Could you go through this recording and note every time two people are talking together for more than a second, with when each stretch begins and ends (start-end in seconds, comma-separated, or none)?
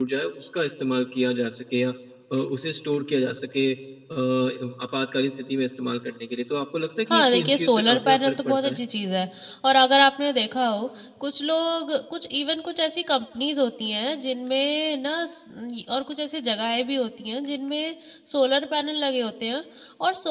7.1-8.8